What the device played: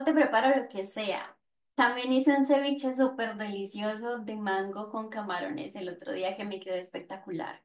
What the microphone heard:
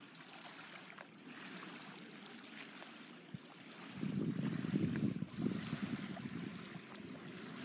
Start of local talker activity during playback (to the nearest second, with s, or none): none